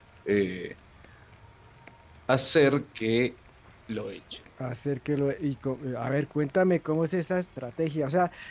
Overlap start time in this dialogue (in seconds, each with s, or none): none